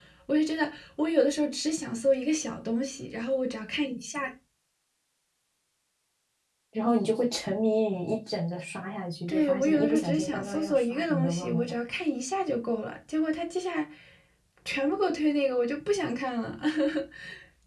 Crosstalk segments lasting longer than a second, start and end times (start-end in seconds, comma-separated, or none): 9.3-11.6